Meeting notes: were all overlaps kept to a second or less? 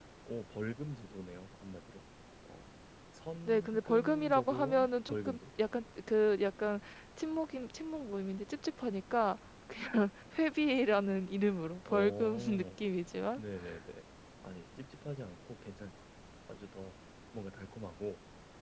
No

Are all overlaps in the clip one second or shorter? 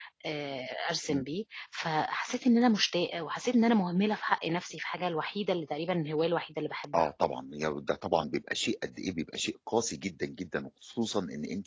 Yes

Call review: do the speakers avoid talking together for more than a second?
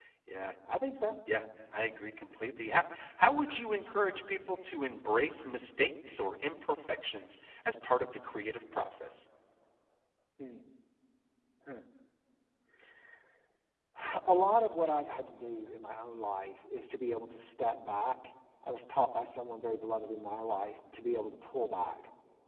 Yes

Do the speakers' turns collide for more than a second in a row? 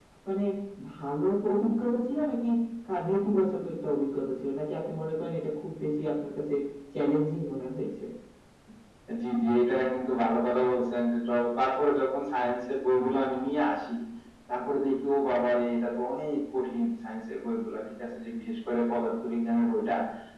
No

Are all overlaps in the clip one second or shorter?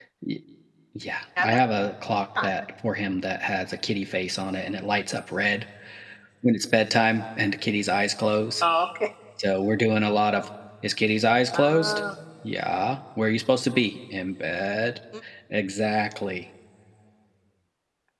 Yes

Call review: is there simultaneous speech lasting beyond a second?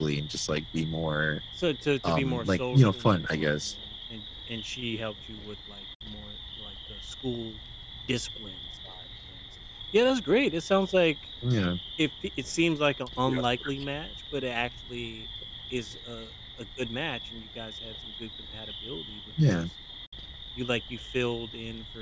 Yes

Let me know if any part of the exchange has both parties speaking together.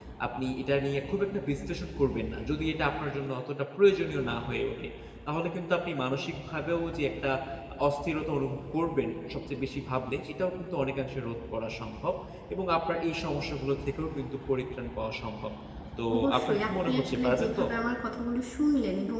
Yes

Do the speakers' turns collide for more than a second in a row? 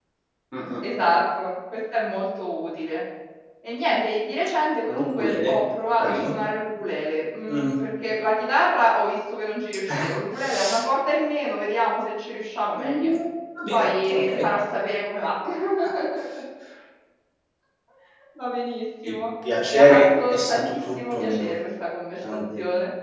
Yes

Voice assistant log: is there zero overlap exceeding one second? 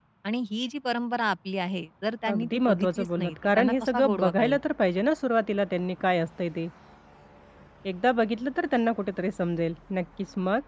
No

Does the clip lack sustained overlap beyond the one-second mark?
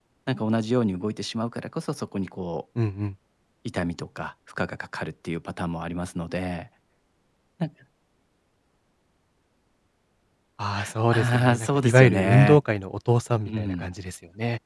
No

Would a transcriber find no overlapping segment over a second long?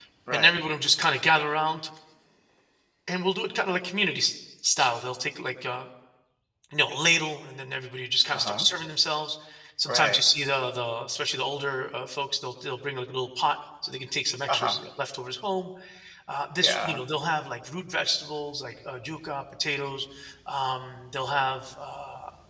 Yes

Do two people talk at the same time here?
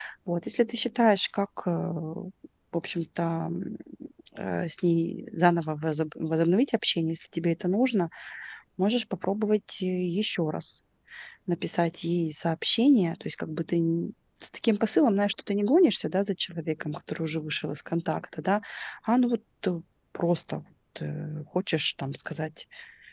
No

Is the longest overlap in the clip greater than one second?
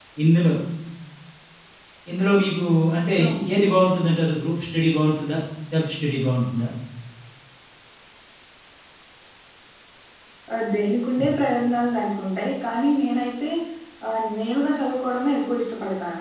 No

